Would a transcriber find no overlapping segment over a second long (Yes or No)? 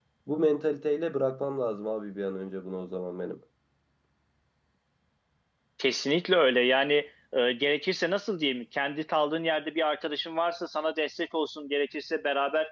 Yes